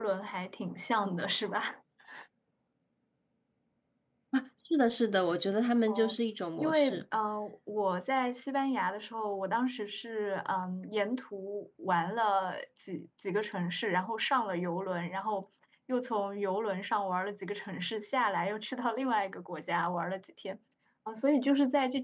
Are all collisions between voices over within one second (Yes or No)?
Yes